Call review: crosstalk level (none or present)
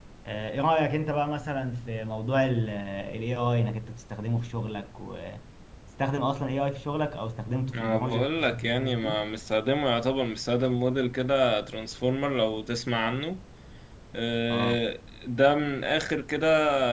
present